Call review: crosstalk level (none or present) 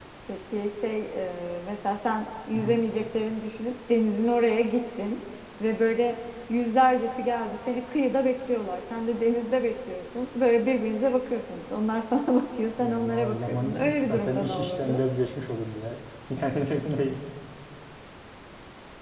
present